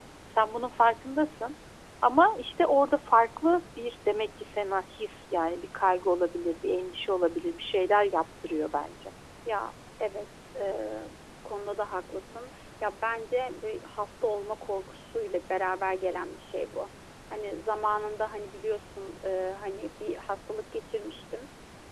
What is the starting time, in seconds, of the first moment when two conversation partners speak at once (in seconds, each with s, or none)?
none